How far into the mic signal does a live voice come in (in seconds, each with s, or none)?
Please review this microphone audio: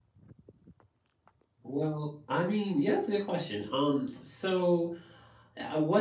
1.6 s